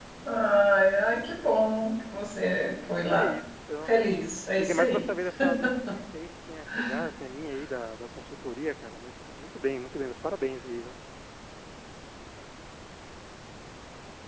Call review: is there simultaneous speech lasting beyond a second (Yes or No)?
No